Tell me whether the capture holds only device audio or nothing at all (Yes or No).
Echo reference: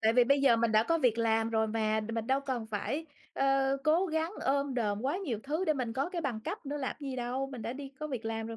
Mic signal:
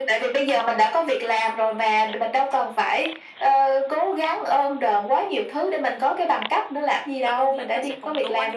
No